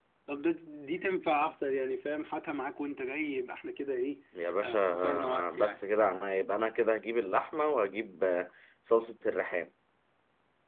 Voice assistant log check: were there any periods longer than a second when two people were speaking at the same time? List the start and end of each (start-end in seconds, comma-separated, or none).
4.6-5.9